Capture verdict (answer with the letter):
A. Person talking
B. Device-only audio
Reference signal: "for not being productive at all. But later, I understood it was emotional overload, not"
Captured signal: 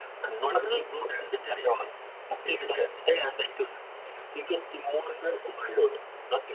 A